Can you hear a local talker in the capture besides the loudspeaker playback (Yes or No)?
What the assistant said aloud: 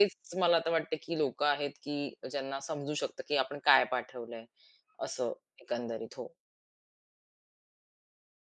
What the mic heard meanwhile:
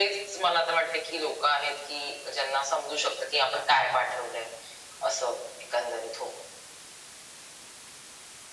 No